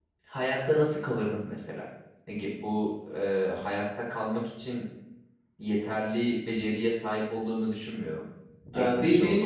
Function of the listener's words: taking over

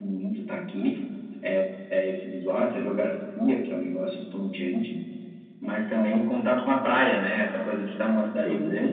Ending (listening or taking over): listening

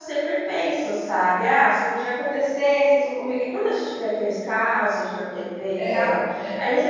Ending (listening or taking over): listening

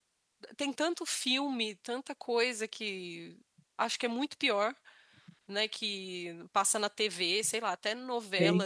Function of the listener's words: listening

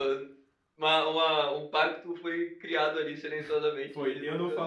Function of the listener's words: taking over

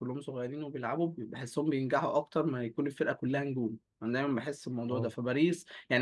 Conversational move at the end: listening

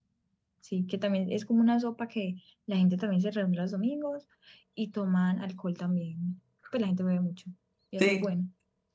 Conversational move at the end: taking over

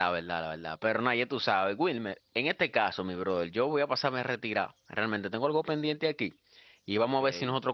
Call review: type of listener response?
listening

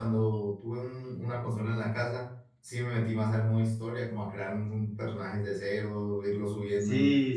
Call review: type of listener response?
taking over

